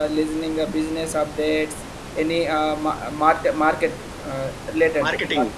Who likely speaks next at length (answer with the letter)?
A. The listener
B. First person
A